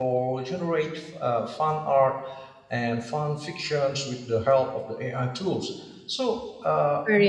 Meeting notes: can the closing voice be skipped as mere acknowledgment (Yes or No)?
Yes